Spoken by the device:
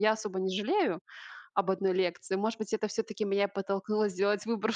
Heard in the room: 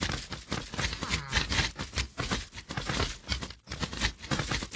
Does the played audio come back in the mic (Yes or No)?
No